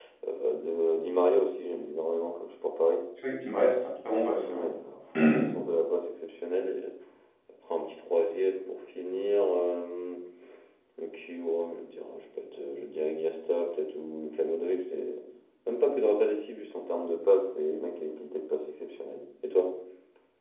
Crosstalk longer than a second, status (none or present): none